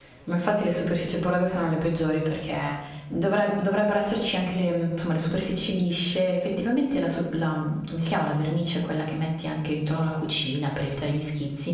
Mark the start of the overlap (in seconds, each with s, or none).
none